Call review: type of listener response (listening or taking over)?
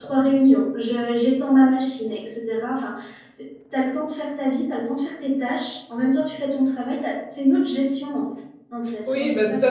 taking over